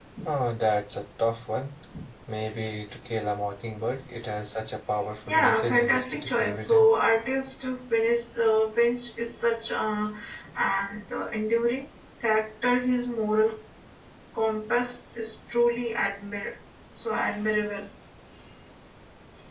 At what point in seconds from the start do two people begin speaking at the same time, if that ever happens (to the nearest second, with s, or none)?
5 s